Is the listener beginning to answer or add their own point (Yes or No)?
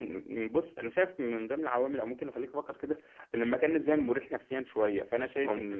No